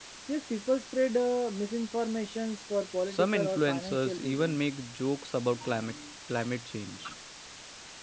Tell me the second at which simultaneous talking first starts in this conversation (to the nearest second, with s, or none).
3 s